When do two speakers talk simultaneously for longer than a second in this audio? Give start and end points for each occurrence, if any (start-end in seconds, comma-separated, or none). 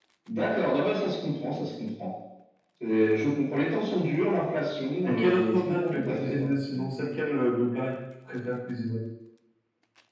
5.0-6.8